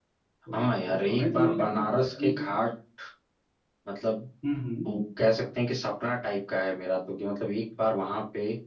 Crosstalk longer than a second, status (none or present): present